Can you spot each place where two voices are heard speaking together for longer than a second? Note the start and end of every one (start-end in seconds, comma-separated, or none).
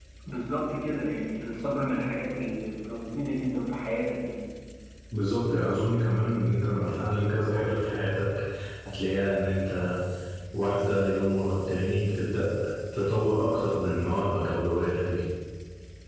none